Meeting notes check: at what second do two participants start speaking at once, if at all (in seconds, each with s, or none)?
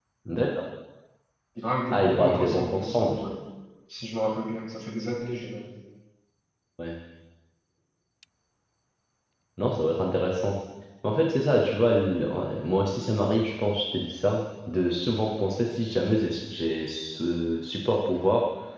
1.9 s